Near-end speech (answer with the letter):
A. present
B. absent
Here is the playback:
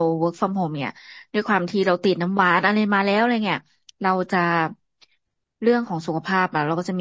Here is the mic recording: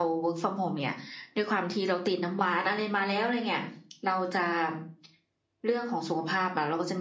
B